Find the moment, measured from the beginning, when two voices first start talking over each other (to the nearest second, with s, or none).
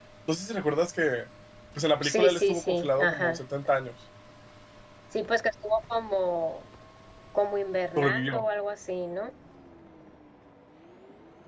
2 s